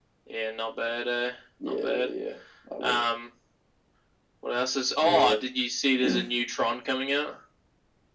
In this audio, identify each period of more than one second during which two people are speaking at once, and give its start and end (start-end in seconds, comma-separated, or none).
none